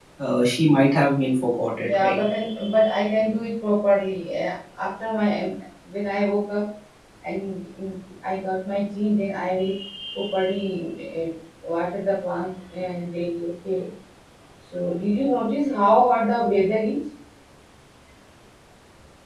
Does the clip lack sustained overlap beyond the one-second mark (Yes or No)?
Yes